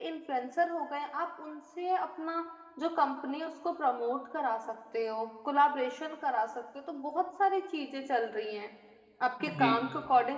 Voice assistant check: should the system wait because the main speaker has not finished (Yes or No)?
Yes